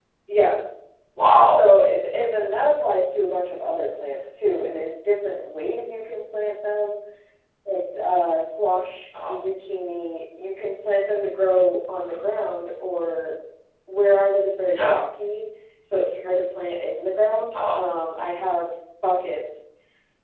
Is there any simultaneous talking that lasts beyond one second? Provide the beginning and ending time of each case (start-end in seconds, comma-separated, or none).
none